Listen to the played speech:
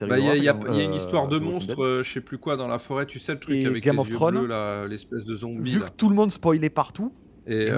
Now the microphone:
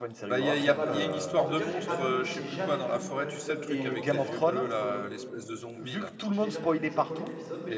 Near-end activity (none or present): present